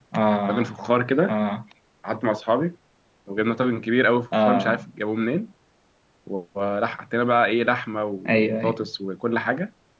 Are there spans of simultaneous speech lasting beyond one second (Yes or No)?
No